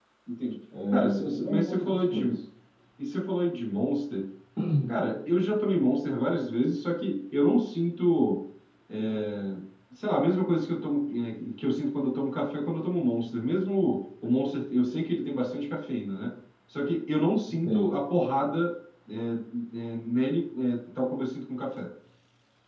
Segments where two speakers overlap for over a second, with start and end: 0.9-2.2

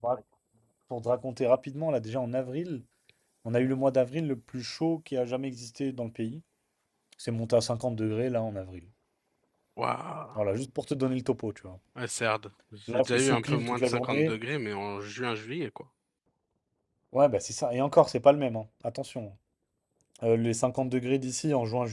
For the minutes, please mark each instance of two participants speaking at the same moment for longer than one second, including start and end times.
12.9-14.4

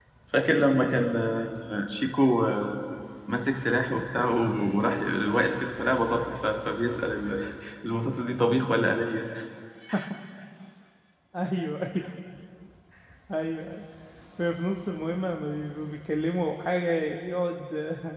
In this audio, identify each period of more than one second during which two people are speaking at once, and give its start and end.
none

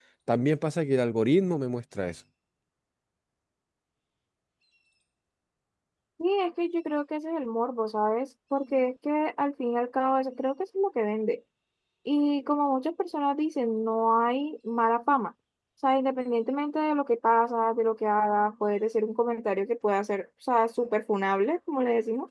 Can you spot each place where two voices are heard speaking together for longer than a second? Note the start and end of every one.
none

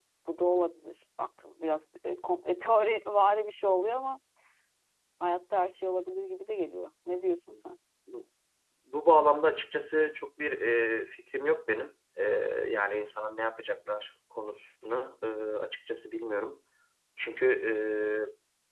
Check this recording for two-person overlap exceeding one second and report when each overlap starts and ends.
none

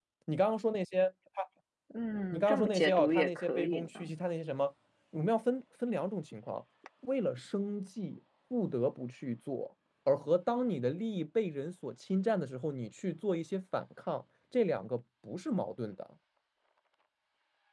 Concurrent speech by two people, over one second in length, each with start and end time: 2.3-4.1

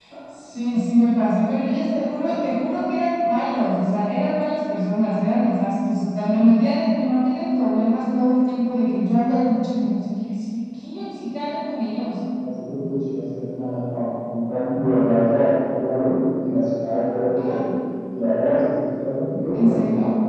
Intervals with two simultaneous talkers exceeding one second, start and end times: none

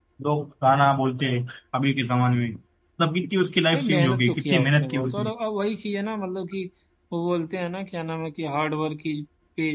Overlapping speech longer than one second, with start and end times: 3.7-5.3

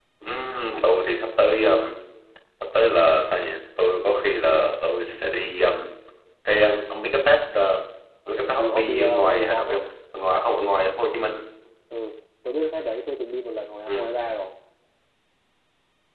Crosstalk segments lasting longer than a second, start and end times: 8.6-9.8

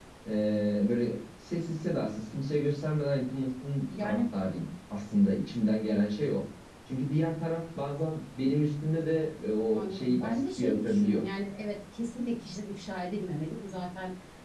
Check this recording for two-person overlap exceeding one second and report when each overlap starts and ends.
9.7-11.2

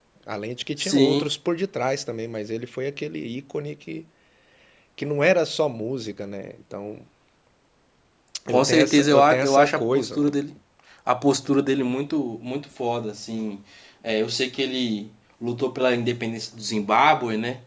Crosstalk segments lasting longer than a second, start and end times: 8.5-10.2

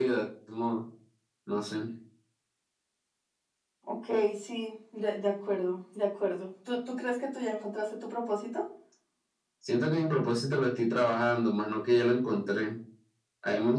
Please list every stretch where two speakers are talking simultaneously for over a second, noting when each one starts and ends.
none

